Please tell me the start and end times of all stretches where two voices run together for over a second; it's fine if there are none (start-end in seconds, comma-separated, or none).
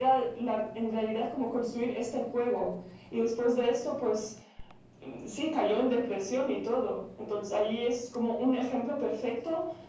none